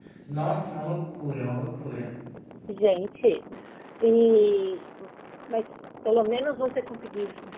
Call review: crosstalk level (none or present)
none